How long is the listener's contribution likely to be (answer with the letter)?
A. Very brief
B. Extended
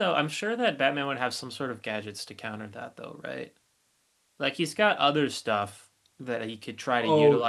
A